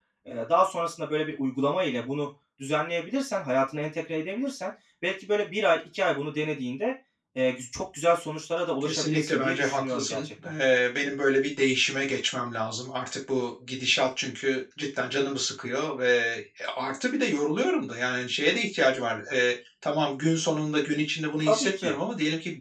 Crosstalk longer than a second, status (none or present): present